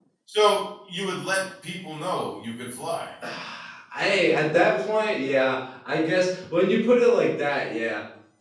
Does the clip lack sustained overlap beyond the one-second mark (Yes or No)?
Yes